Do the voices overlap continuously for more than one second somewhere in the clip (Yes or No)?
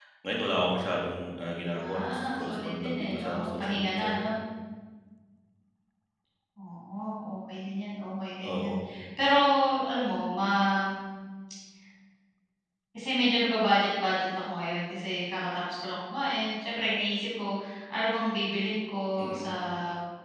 Yes